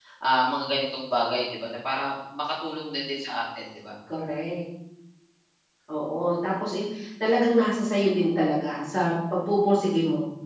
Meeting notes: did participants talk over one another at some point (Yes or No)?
No